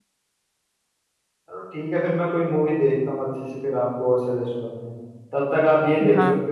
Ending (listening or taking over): listening